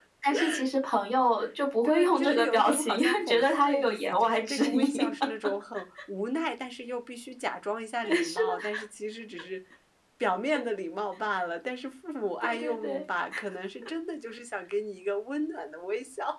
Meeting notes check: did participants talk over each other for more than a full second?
Yes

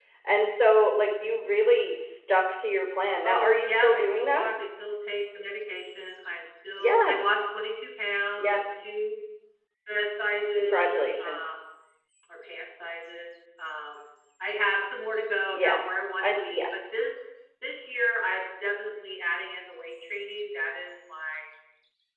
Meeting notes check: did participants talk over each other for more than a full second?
Yes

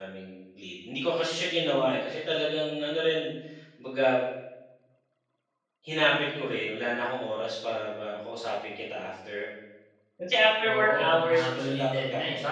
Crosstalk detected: Yes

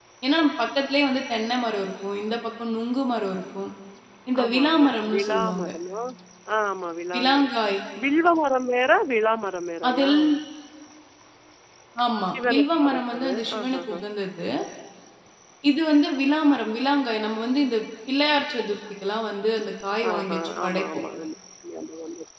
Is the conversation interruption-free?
No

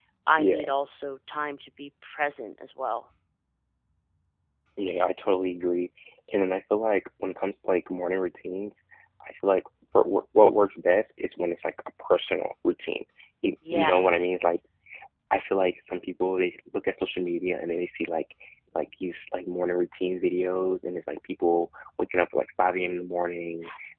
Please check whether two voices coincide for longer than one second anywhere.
No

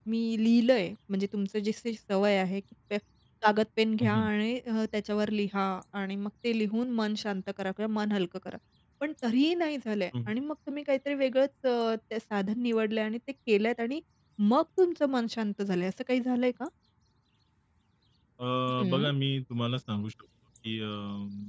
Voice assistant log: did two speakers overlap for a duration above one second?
No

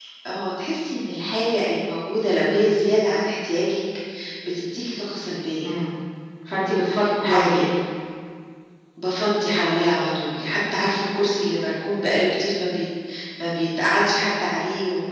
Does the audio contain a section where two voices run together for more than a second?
No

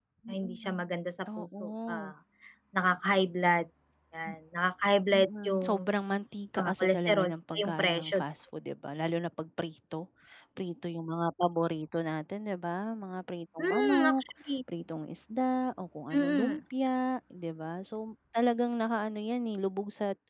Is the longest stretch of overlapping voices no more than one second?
No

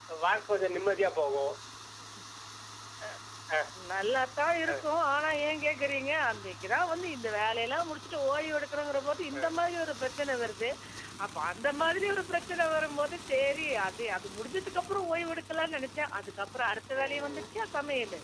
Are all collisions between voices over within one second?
Yes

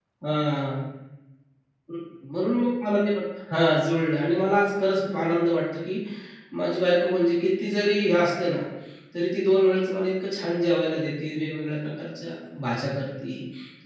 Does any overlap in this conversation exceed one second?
No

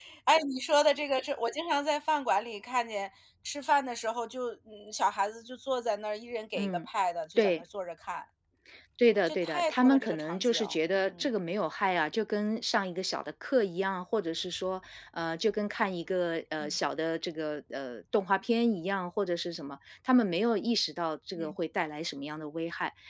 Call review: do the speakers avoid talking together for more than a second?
No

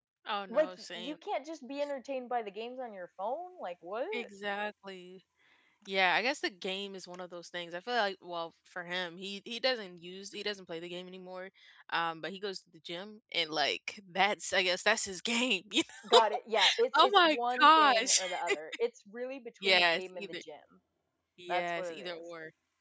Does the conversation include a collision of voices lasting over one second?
Yes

